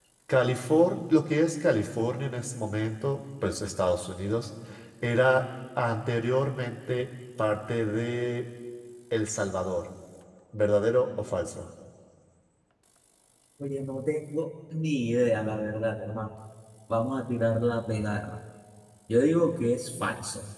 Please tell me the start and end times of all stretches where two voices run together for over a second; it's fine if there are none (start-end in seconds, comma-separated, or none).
none